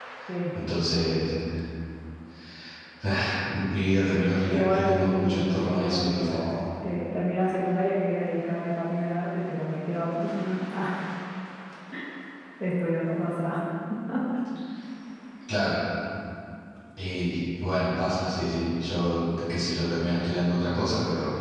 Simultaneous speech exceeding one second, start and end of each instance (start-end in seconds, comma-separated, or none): 4.5-6.4